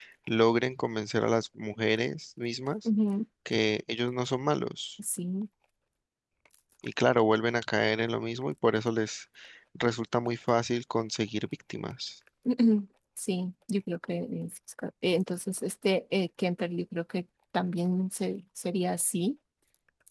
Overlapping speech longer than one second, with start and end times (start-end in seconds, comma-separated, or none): none